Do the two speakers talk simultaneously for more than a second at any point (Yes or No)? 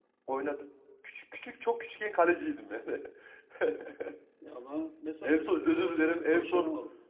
Yes